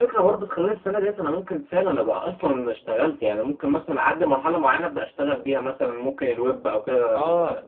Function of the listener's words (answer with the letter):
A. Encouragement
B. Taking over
B